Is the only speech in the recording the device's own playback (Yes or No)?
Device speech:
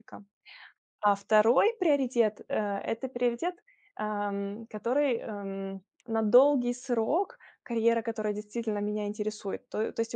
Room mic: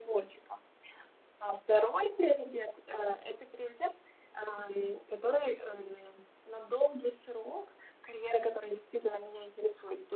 Yes